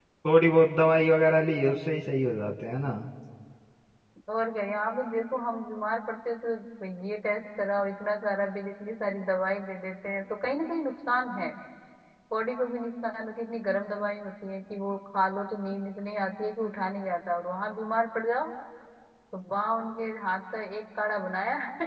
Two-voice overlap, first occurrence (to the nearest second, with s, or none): none